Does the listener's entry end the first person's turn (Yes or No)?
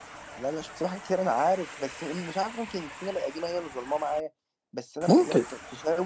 No